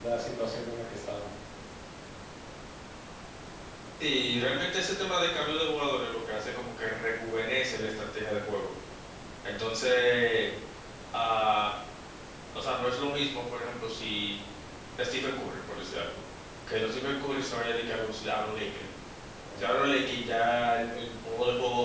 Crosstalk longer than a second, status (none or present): none